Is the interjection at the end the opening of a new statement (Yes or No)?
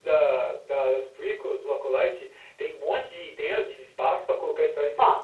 Yes